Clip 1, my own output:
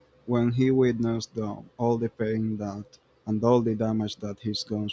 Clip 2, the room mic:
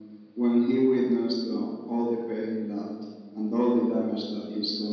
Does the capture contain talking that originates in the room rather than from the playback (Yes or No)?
No